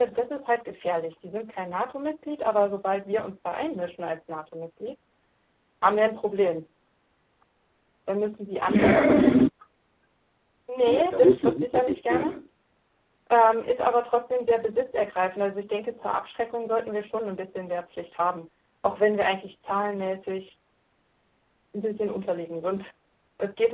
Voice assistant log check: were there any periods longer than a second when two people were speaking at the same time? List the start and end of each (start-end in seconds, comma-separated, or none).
10.9-12.3